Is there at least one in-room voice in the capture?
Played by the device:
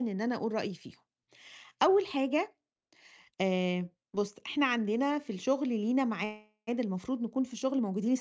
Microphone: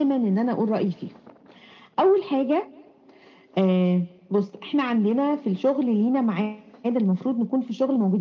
No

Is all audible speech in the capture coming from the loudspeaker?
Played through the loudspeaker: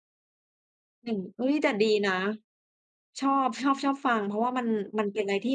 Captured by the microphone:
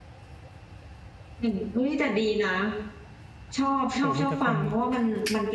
No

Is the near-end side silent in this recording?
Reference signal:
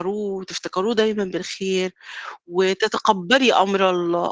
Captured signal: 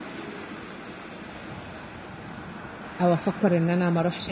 No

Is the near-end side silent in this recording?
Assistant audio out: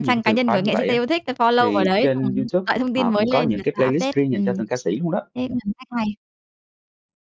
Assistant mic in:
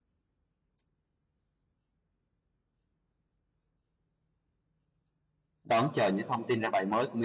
No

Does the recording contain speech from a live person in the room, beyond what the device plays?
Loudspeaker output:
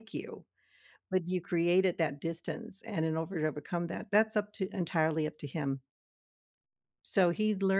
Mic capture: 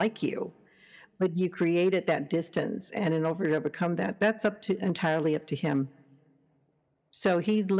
No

